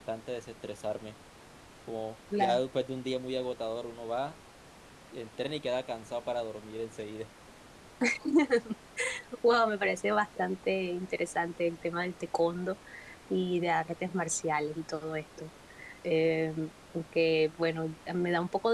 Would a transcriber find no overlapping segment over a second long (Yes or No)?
Yes